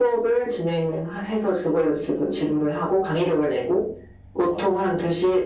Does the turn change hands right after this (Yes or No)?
No